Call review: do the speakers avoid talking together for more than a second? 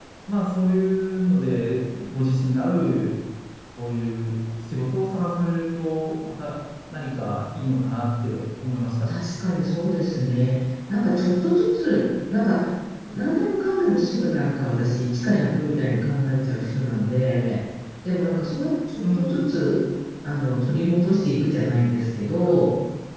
Yes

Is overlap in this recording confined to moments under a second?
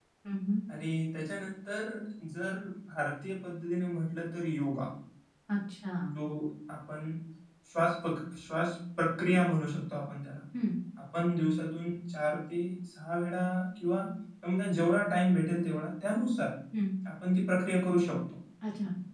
Yes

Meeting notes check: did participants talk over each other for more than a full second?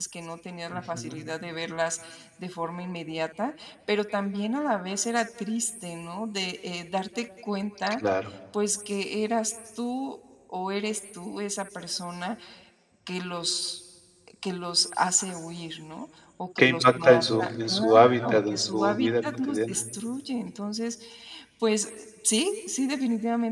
Yes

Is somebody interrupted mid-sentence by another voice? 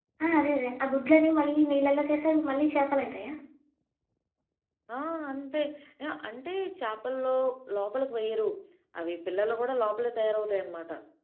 No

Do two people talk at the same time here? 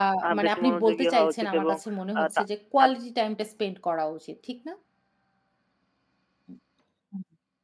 Yes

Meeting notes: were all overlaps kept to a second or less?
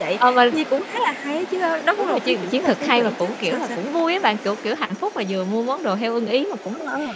No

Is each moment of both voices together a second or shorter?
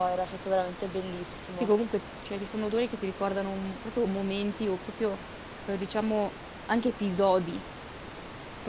Yes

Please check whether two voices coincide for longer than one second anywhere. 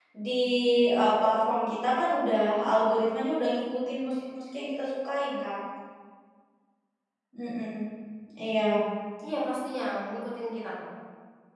No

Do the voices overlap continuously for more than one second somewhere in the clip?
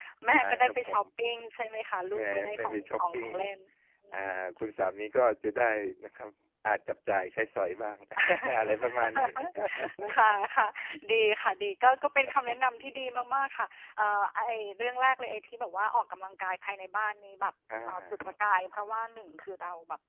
Yes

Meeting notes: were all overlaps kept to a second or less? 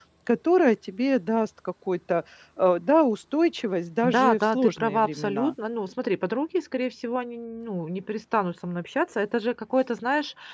No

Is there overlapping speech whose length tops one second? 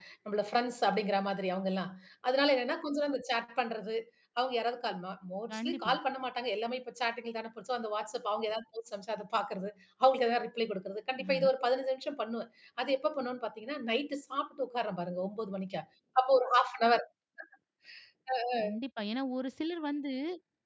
No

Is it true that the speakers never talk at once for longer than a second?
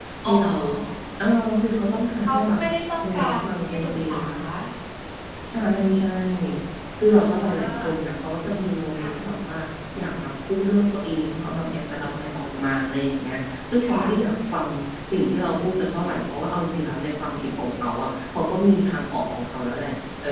No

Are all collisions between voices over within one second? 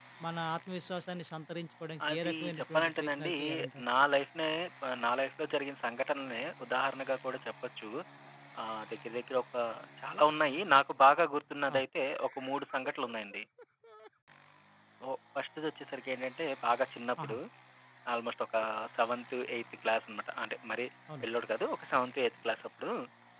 No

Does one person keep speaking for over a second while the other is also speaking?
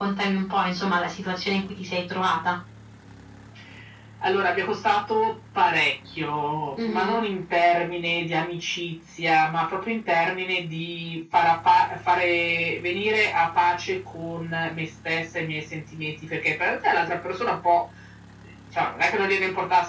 No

